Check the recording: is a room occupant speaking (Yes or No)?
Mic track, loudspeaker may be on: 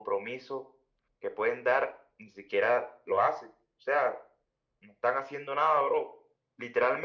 No